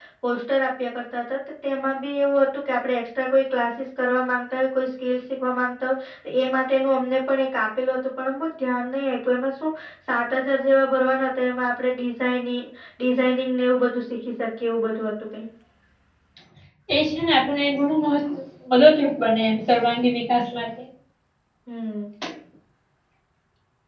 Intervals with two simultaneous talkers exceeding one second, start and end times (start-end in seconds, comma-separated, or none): none